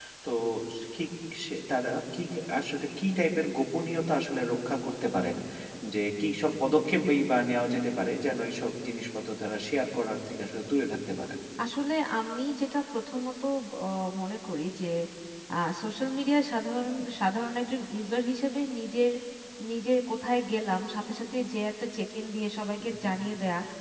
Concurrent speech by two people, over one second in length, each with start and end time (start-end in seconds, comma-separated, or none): none